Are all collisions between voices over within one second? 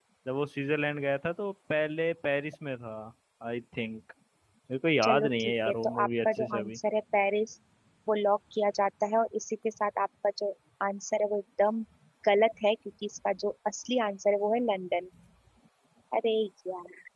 No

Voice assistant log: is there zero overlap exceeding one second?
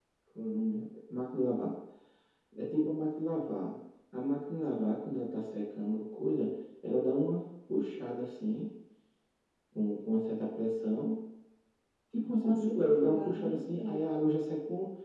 No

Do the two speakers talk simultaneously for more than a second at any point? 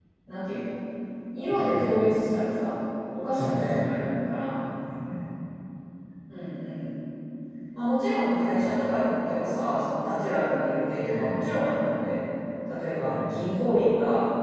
No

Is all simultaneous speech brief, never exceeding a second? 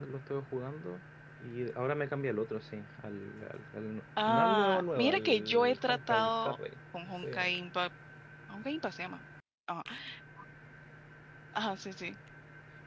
No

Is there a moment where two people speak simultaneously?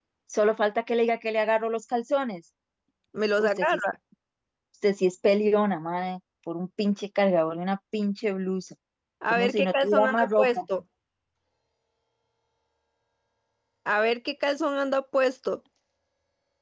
Yes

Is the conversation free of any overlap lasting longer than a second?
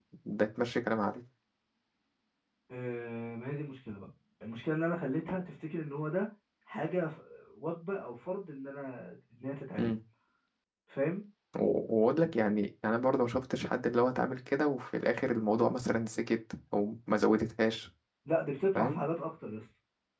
Yes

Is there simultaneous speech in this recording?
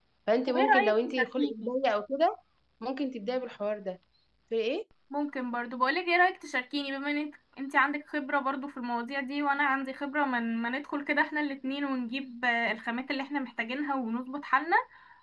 Yes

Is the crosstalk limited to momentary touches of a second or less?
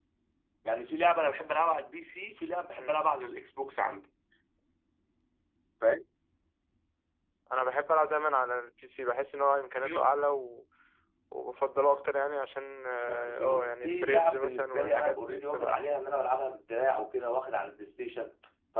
No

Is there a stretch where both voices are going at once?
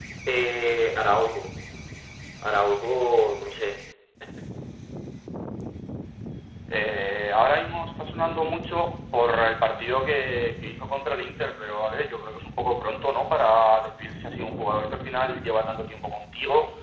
No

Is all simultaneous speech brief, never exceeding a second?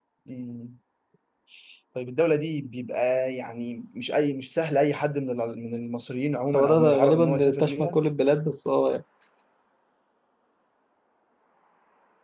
No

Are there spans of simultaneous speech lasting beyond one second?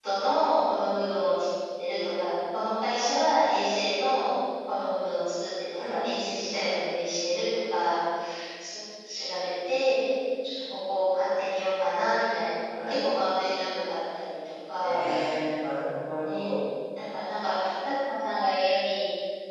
No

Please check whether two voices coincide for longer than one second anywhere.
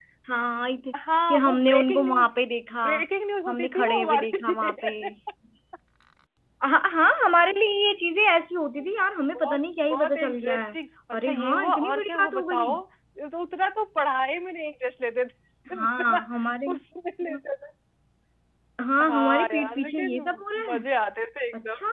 Yes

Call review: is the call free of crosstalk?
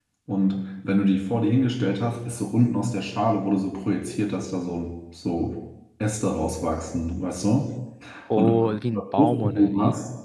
No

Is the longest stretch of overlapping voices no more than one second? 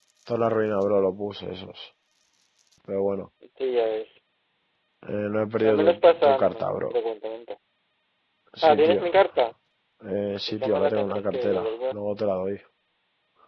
No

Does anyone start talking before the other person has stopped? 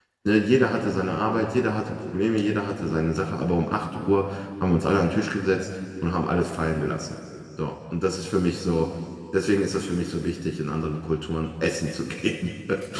No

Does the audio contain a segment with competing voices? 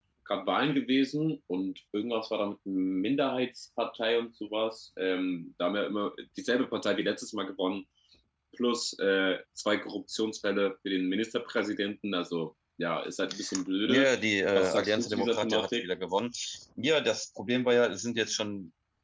Yes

